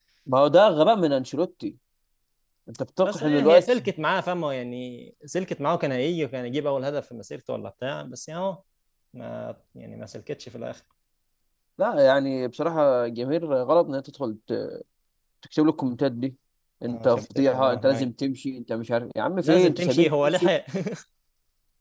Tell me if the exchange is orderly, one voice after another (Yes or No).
No